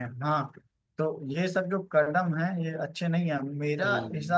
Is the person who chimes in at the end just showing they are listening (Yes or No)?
Yes